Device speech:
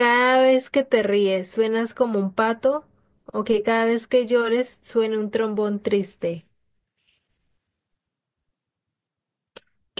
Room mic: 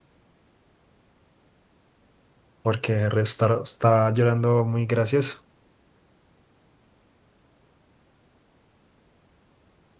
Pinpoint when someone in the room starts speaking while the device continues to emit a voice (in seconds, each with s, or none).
2.6 s